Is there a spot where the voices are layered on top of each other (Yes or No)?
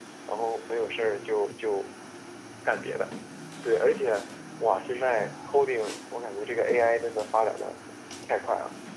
No